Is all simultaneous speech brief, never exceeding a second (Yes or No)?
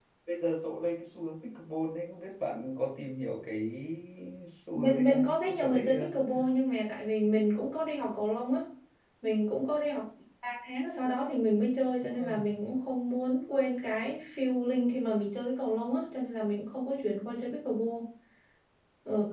No